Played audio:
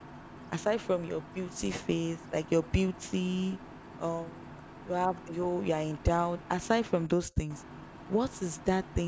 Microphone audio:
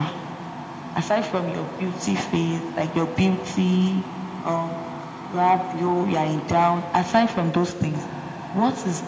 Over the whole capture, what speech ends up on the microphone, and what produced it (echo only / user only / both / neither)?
echo only